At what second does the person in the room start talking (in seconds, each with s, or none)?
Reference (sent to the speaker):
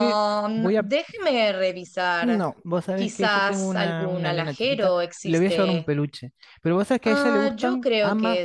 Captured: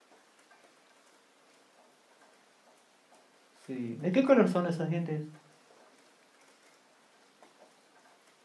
3.5 s